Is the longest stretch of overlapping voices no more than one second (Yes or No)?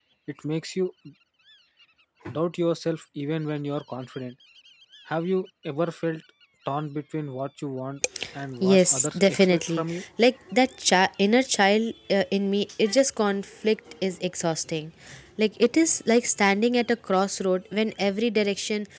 No